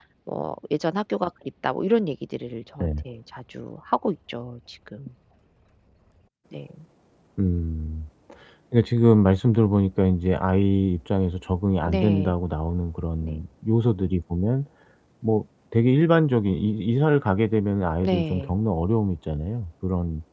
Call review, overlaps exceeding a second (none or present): none